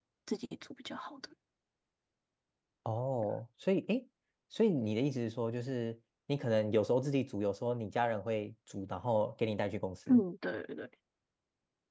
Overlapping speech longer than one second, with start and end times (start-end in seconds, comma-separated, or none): none